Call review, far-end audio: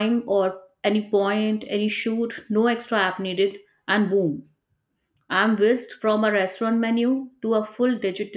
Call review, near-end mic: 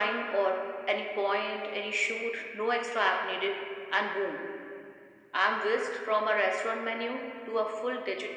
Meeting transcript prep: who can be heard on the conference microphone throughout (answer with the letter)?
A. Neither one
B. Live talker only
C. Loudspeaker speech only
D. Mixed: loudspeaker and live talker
C